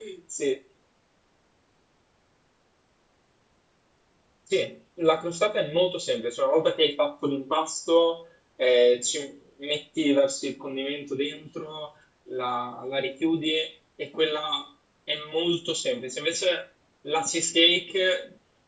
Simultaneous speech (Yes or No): No